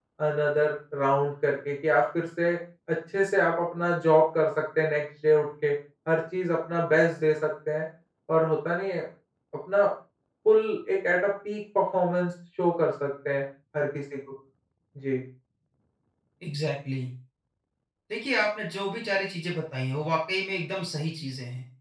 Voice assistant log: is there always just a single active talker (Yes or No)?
Yes